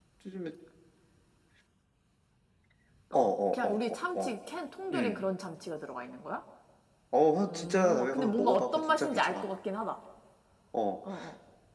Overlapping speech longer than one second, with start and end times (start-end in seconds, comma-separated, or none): 3.1-4.4, 7.5-9.5